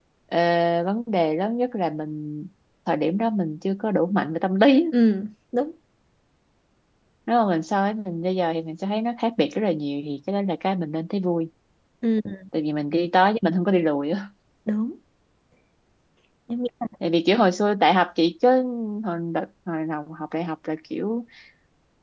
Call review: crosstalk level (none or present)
none